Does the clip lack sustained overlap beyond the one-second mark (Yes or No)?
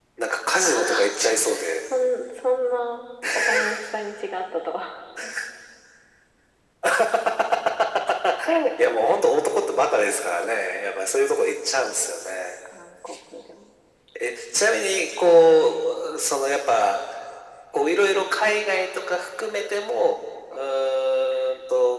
Yes